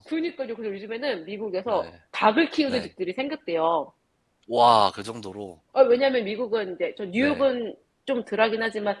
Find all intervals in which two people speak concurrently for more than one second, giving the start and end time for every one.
none

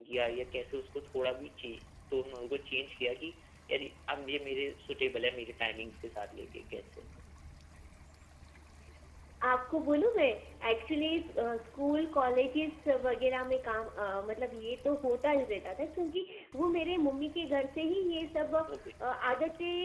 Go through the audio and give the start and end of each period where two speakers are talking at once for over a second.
none

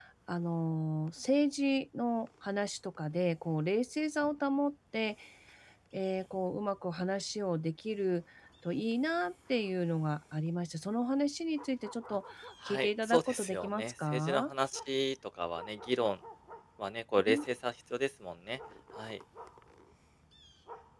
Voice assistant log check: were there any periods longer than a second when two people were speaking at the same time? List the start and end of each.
12.6-14.5

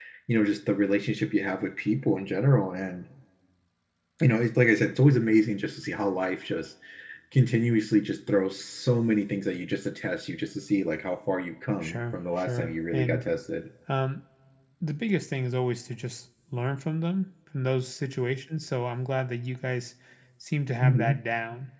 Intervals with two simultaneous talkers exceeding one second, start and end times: 11.8-13.2

